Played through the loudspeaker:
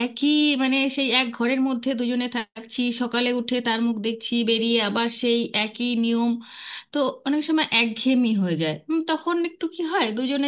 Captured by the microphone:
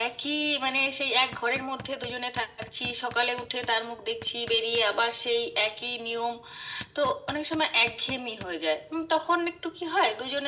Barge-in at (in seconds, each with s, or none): none